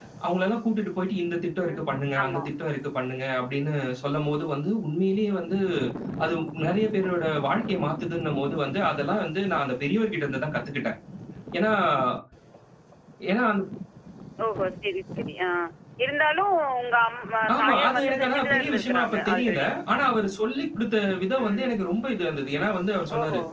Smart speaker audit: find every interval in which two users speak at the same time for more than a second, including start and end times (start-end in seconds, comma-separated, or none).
17.6-19.7